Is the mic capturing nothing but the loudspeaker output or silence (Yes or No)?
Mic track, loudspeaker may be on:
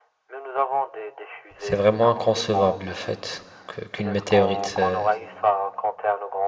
No